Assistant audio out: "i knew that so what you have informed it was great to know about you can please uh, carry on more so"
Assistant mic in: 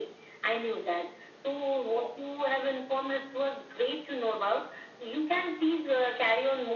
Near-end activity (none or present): none